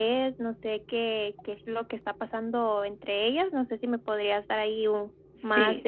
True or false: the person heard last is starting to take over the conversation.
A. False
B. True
B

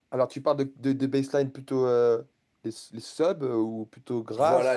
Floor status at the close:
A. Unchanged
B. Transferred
B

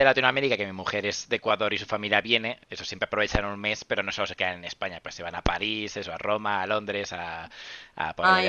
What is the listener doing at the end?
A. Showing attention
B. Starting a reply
B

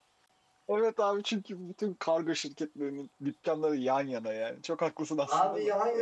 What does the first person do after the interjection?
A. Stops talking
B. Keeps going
A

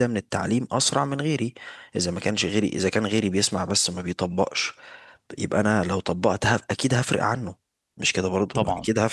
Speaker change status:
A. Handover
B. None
A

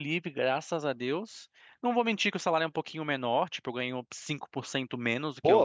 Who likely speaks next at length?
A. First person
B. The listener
B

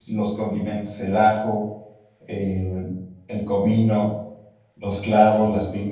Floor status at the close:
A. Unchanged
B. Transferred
B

